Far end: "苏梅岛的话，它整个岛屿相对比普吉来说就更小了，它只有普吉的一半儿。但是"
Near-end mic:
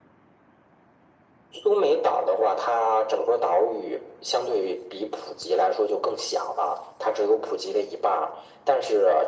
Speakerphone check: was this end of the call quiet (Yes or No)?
Yes